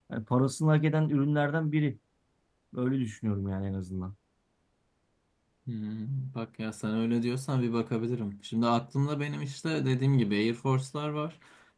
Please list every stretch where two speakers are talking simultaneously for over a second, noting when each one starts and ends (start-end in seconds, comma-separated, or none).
none